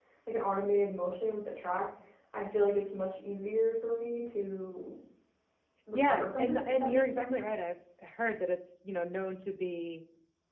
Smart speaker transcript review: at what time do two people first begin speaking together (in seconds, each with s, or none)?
5.9 s